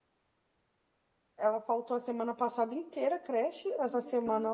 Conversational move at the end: listening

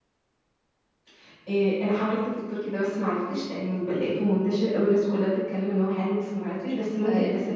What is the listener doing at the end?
listening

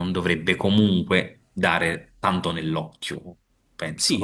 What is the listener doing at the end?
taking over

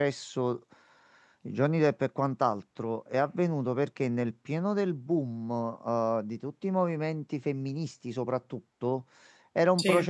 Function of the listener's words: listening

